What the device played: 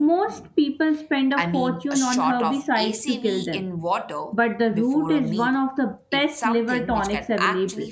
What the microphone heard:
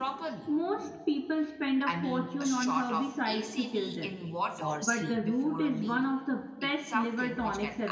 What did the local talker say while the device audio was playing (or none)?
for sleep,